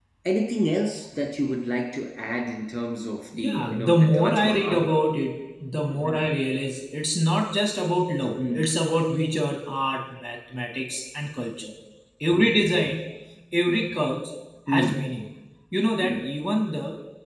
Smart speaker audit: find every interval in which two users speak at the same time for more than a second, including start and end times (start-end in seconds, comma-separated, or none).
3.4-4.9